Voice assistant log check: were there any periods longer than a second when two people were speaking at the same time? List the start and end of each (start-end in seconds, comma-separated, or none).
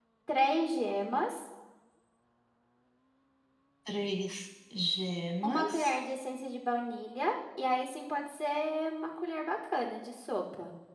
none